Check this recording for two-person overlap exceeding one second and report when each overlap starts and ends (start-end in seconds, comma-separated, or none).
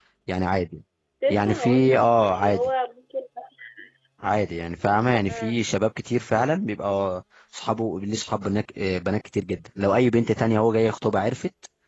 1.3-2.7